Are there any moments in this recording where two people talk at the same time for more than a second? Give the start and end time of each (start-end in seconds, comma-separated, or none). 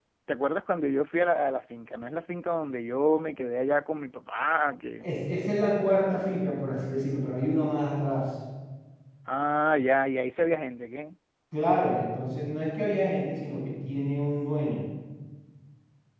none